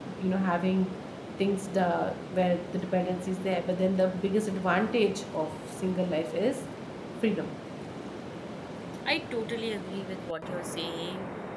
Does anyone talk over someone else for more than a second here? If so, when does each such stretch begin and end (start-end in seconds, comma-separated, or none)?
none